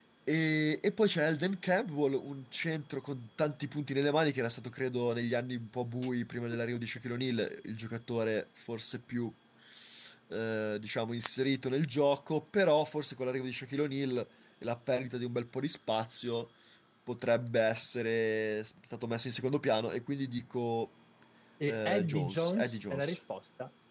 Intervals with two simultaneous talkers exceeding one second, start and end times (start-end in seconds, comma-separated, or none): 21.7-23.2